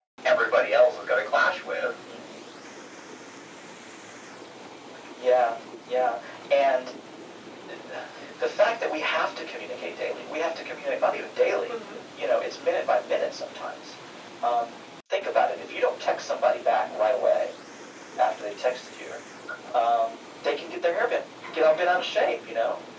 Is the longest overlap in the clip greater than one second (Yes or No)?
No